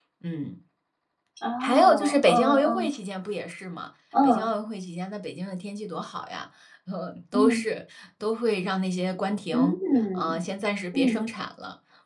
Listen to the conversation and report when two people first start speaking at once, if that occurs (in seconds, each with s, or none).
1.6 s